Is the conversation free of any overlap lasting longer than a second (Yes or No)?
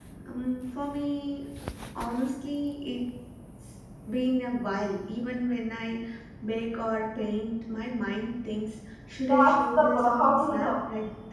No